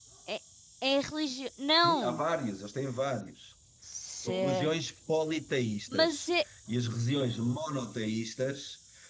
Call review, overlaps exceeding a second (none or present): none